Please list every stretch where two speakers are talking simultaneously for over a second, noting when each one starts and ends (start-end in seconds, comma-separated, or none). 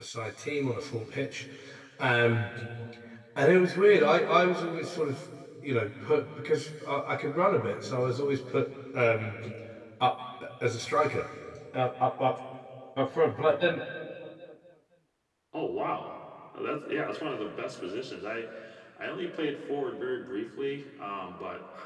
none